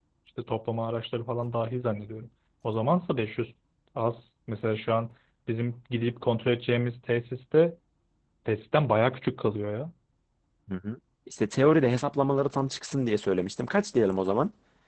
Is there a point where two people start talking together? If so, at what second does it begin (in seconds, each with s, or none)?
none